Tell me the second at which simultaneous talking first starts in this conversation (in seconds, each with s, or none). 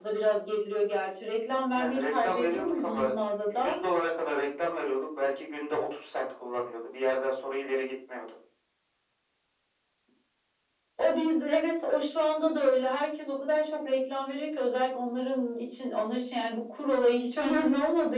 1.7 s